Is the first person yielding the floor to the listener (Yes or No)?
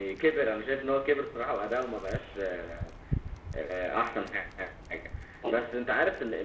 No